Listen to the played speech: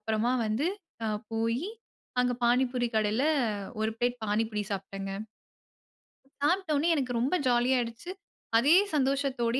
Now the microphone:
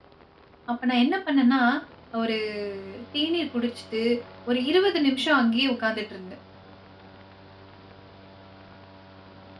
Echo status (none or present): none